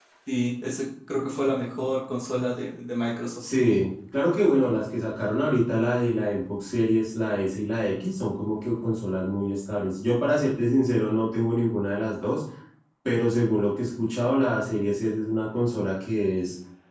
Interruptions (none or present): none